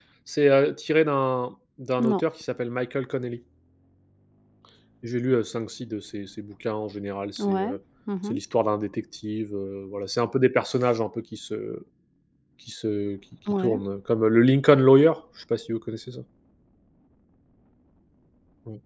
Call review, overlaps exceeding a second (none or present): none